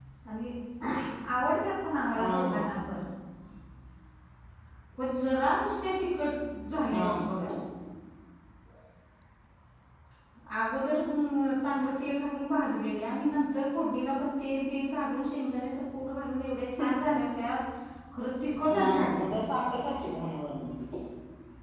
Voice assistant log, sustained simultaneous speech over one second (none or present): none